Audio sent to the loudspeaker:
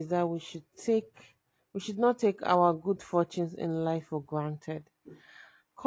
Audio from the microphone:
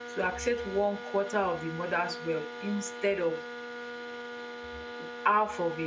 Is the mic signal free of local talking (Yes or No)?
No